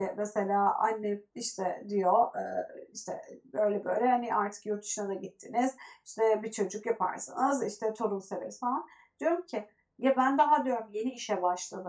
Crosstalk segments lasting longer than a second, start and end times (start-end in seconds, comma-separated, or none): none